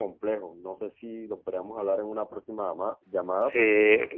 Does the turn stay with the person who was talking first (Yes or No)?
No